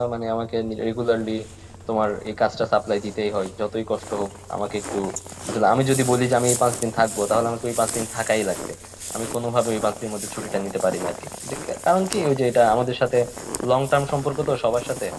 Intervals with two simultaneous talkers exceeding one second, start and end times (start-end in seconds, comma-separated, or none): none